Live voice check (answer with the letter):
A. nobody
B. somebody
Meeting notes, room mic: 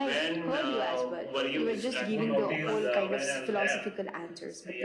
B